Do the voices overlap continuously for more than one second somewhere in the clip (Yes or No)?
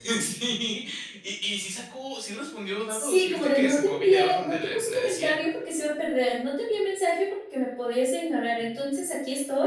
Yes